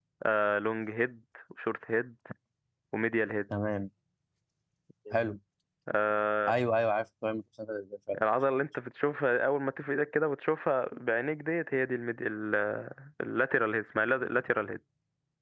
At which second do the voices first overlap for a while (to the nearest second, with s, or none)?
none